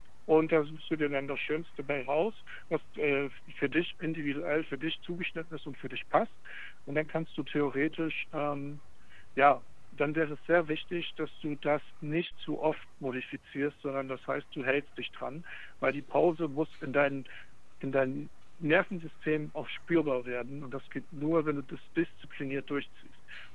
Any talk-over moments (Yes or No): No